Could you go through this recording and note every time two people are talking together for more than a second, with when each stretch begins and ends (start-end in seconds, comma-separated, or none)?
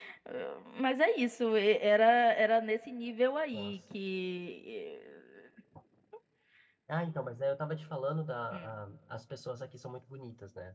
none